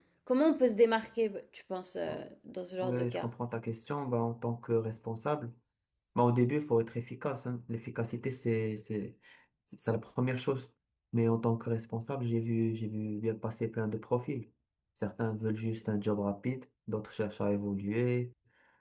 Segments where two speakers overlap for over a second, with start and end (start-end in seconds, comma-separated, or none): none